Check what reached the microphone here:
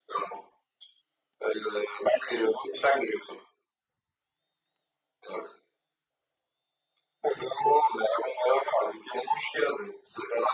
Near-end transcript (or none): none